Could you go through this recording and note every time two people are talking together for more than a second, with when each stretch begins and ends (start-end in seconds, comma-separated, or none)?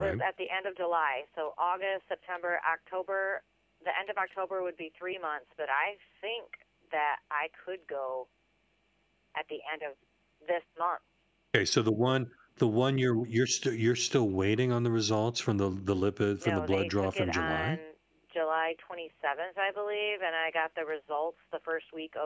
16.4-17.8